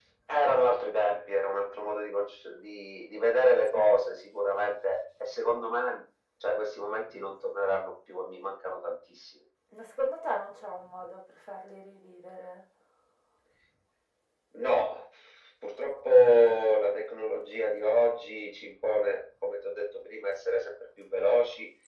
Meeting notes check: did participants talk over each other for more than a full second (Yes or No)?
No